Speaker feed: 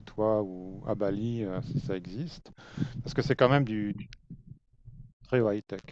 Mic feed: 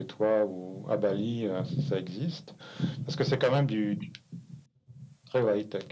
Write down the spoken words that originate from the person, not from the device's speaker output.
none

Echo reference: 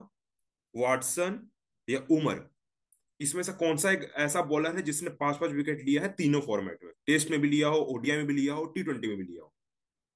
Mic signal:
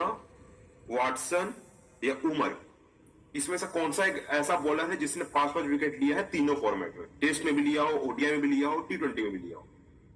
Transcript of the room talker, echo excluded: none

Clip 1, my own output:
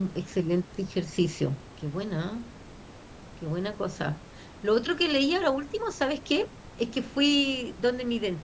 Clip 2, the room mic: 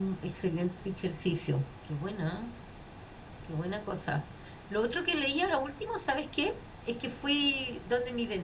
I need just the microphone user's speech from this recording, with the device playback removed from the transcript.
none

